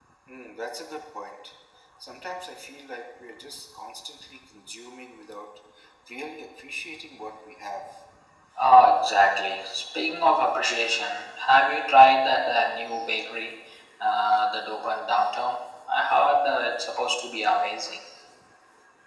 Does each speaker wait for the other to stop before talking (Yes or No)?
Yes